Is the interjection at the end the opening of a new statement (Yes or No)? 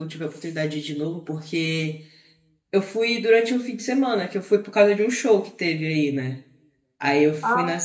No